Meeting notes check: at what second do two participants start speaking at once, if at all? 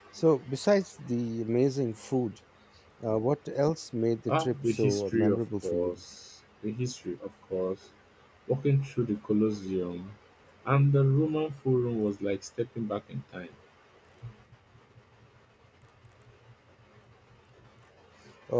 4.3 s

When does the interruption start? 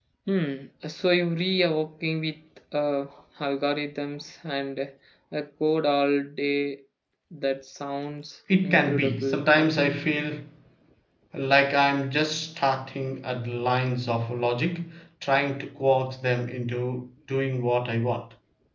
8.5 s

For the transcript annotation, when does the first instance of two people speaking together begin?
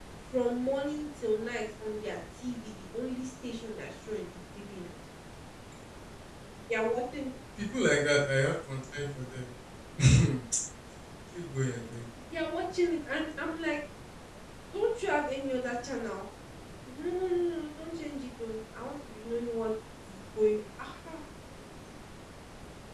none

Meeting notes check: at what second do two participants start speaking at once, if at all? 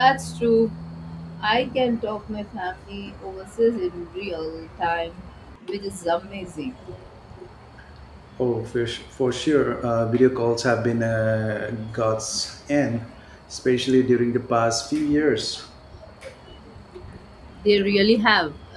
none

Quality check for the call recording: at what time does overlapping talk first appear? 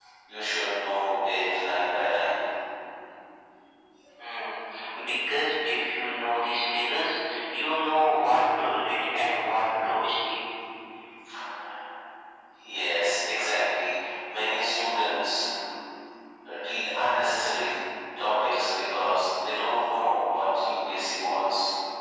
none

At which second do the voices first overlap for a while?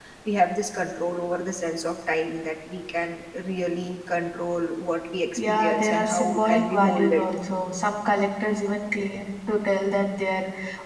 5.4 s

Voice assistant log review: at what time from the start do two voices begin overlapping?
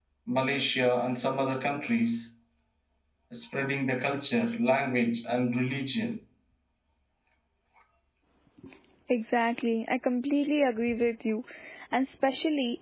none

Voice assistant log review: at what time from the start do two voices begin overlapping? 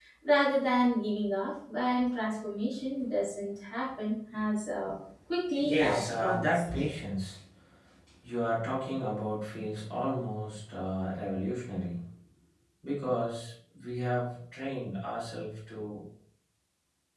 5.6 s

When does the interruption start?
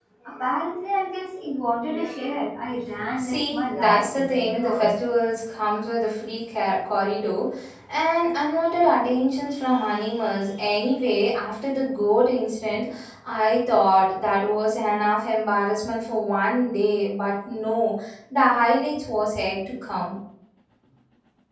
2.9 s

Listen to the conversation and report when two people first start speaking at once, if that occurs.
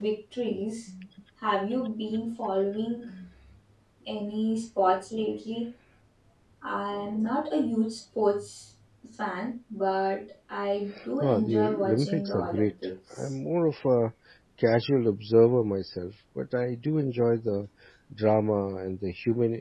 11.0 s

